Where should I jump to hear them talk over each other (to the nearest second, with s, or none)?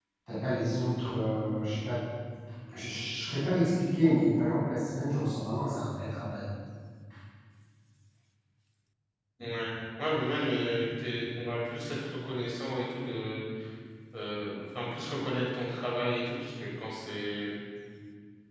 none